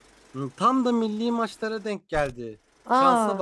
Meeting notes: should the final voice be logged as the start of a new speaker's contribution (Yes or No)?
No